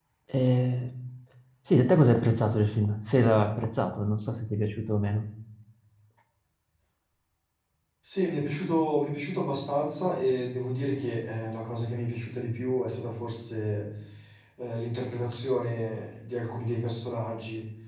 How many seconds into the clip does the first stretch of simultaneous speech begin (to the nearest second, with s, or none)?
none